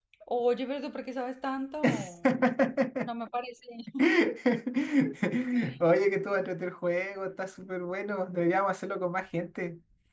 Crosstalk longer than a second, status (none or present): none